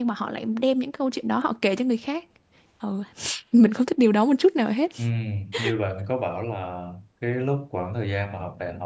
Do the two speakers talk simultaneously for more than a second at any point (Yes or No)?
No